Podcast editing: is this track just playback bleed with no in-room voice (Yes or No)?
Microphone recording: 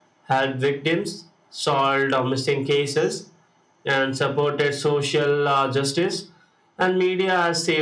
Yes